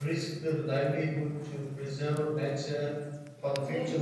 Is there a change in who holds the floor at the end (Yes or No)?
Yes